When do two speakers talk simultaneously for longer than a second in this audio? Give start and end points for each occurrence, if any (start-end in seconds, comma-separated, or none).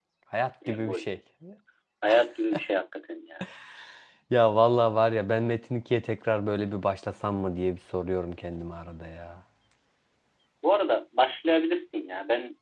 none